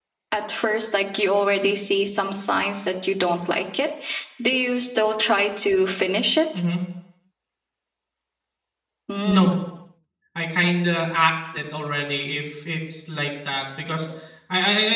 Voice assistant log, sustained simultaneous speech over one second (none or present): none